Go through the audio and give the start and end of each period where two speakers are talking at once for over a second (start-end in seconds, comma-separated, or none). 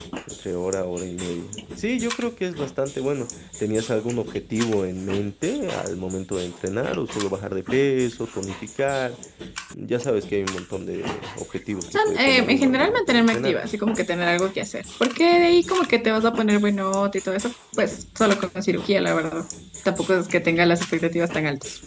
12.0-13.6